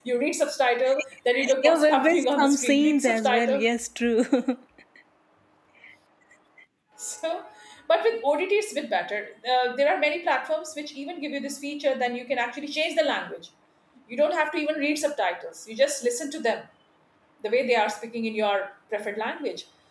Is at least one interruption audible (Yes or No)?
Yes